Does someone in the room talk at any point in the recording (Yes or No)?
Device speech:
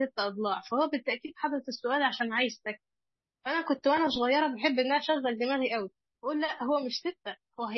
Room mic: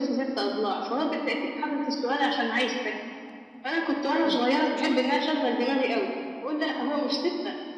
Yes